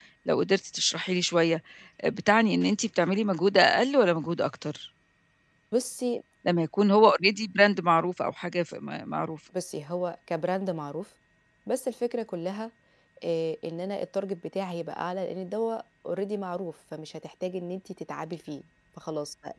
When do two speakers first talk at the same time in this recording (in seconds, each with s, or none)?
none